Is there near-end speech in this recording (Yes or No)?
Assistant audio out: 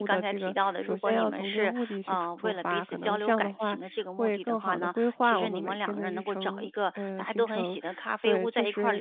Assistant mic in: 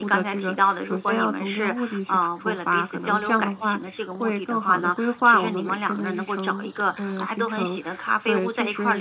Yes